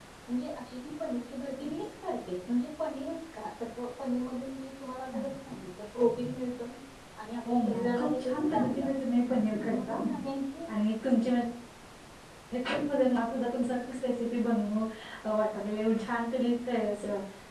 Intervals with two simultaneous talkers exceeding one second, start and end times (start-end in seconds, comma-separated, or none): 7.5-8.9